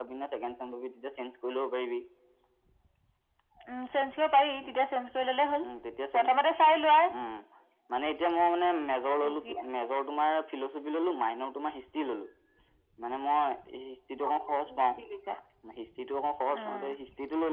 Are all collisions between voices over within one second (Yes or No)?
Yes